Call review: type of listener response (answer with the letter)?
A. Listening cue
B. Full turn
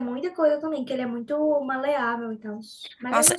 B